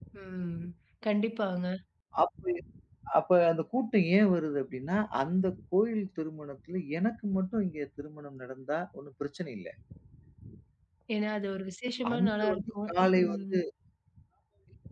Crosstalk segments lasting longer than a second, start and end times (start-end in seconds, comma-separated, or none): 12.1-13.6